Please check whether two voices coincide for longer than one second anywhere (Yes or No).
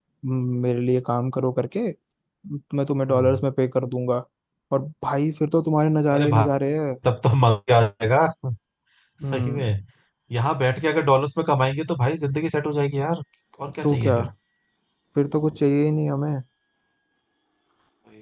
No